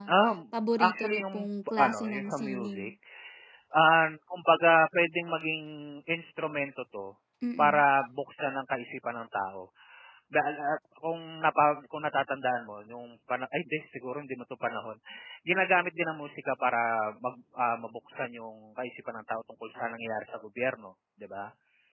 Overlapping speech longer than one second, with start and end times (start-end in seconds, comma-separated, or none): 0.7-2.9